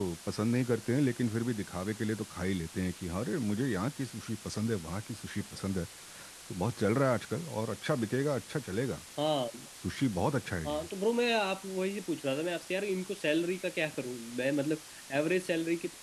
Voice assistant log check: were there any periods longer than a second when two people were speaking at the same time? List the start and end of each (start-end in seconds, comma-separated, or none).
none